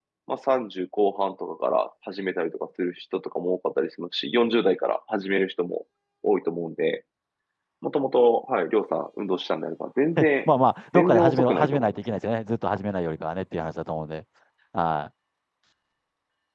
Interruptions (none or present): present